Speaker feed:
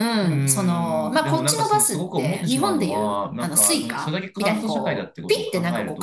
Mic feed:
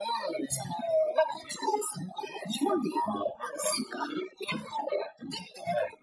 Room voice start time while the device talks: none

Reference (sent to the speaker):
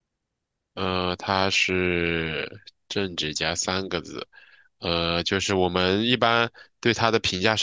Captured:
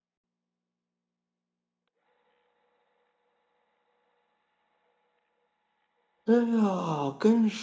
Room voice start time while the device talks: 6.3 s

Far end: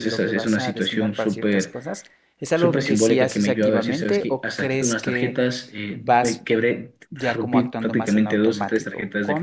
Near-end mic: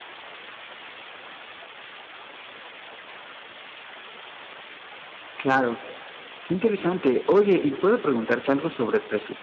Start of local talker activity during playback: 5.4 s

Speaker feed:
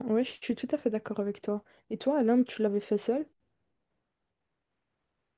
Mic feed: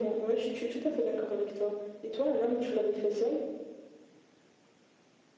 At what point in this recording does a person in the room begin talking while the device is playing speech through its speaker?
none

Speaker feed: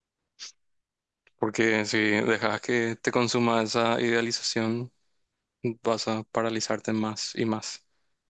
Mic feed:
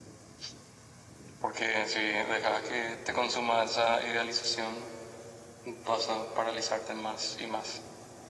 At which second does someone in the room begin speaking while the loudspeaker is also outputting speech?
none

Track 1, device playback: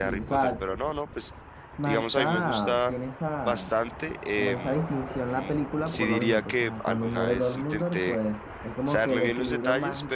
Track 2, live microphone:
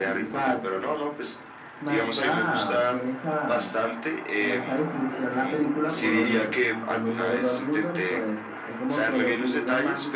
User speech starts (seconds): none

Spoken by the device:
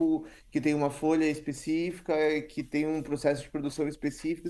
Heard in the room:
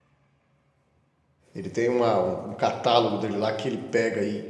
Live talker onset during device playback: 1.5 s

